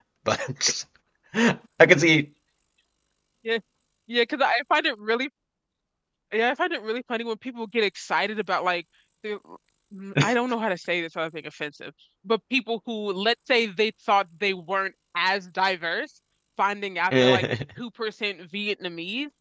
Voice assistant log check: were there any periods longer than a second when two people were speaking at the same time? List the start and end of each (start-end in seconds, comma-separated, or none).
none